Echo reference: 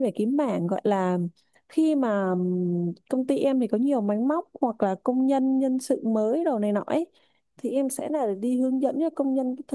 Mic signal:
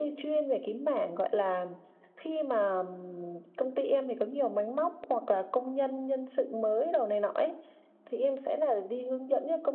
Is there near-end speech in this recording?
No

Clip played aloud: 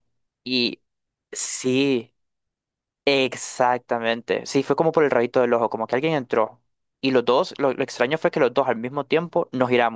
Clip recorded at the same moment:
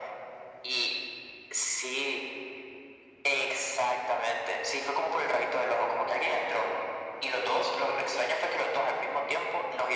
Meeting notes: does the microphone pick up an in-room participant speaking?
No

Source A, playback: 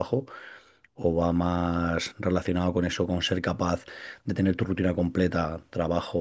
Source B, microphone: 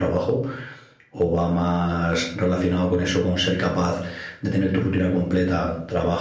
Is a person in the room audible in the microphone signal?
No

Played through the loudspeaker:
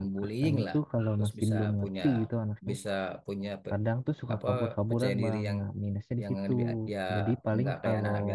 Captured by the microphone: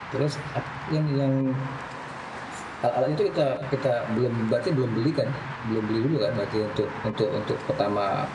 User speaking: Yes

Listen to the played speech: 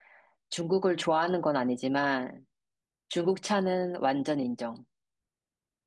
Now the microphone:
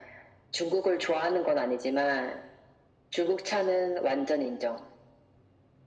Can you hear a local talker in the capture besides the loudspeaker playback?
No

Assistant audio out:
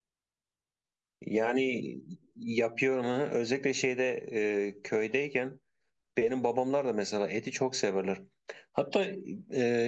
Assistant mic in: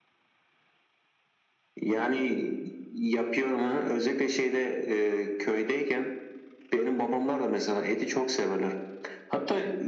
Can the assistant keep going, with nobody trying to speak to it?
Yes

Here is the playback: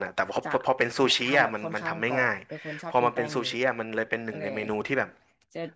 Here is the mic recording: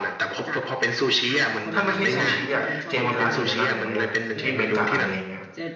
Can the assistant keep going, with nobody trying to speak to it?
No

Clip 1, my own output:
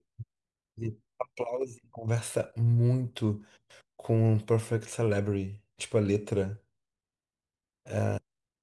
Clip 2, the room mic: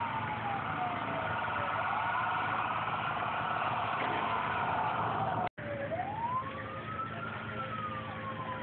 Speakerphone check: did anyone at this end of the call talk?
No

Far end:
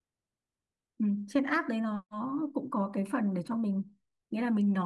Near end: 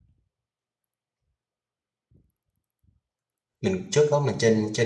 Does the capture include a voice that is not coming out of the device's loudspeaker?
Yes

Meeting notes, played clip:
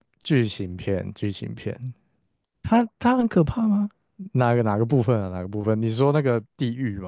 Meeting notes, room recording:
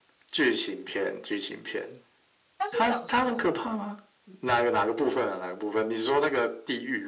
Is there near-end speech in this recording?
Yes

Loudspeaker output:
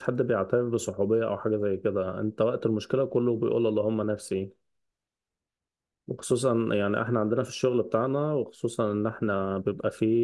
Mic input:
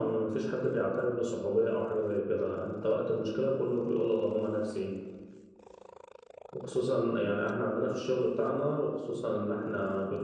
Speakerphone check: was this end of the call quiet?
Yes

